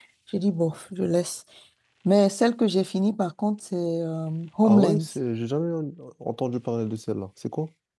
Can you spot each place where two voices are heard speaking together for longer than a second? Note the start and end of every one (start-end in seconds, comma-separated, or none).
none